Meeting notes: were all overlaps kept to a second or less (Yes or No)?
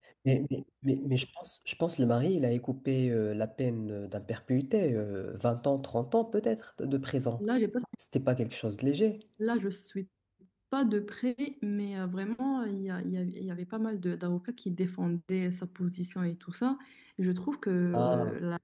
Yes